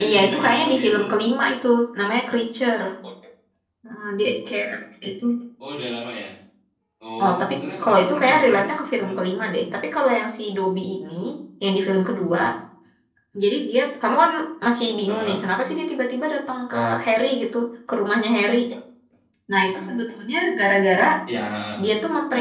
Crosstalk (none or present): present